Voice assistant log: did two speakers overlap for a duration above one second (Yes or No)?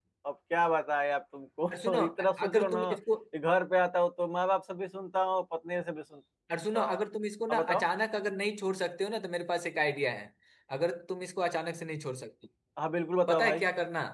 No